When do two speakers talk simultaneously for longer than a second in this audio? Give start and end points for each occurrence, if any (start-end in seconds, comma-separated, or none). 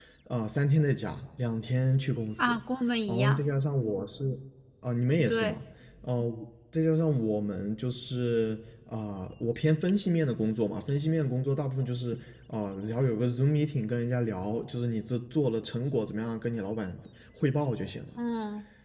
none